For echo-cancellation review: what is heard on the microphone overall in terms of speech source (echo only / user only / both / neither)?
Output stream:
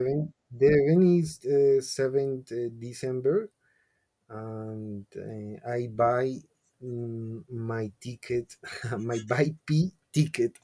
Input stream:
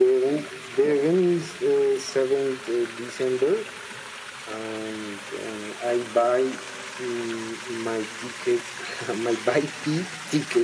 echo only